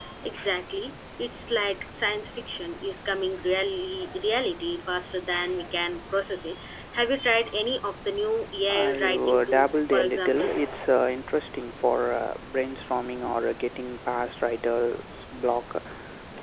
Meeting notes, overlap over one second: present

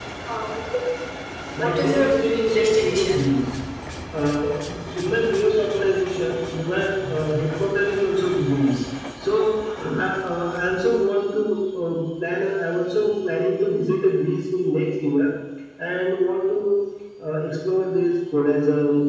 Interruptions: present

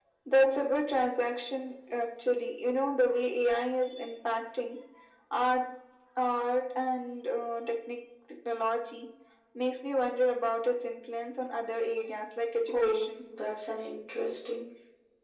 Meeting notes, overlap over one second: none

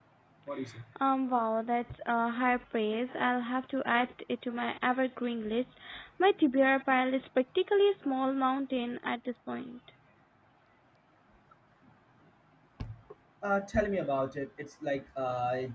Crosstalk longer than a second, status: none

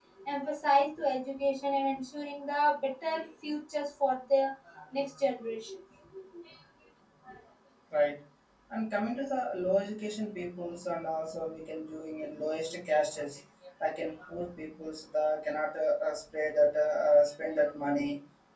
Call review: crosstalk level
none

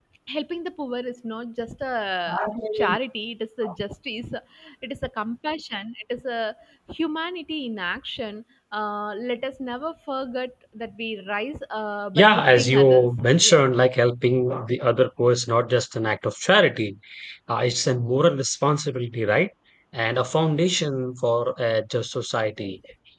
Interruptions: present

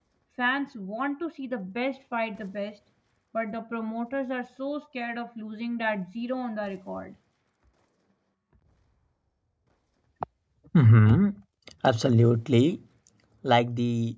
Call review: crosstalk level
none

